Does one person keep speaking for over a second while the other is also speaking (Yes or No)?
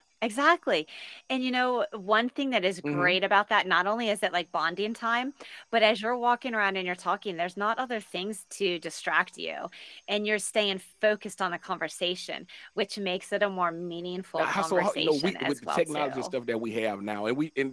Yes